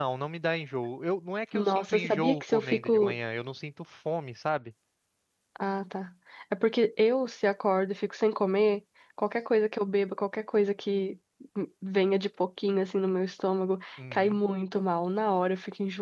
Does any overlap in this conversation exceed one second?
Yes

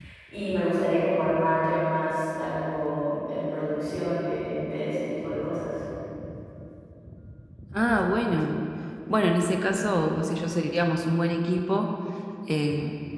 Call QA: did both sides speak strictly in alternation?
Yes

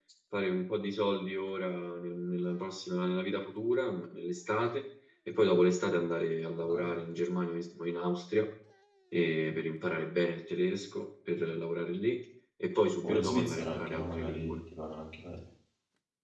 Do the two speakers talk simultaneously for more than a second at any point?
Yes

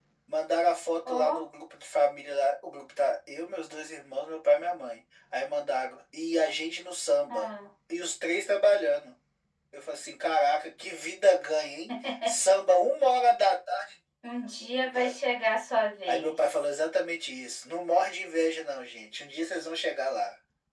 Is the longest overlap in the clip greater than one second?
No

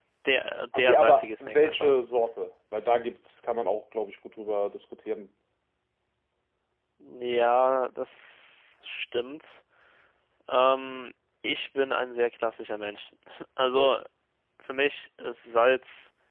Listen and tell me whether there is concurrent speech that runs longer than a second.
Yes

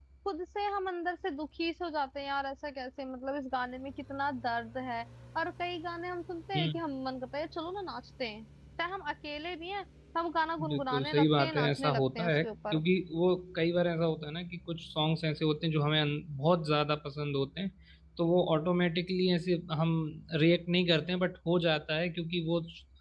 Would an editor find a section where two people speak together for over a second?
Yes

